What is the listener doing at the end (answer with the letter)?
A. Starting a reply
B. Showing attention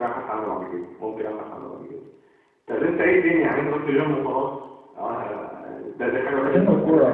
A